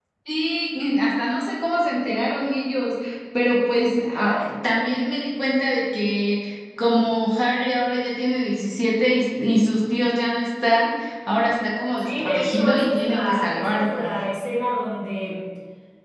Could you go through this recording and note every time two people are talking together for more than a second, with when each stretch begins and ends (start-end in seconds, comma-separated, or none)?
12.0-14.1